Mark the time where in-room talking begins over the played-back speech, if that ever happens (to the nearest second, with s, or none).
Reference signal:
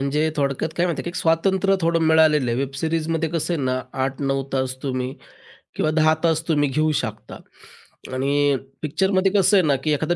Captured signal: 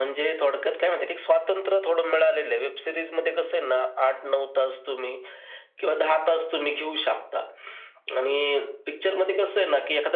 none